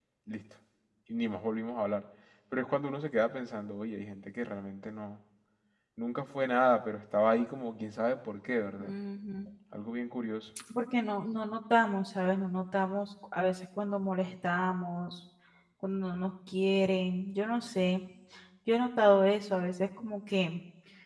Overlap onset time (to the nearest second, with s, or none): none